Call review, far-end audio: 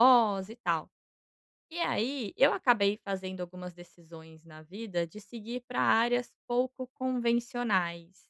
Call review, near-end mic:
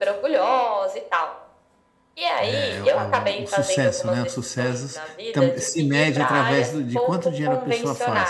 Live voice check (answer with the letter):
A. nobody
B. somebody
B